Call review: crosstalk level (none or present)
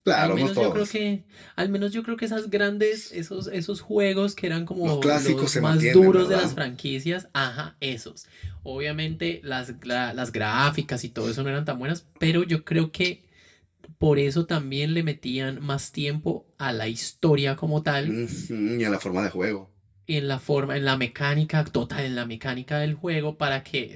present